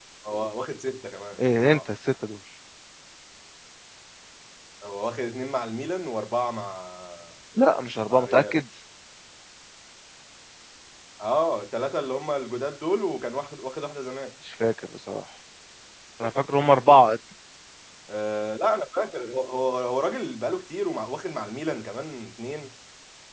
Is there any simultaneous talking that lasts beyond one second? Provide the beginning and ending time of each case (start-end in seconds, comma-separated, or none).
none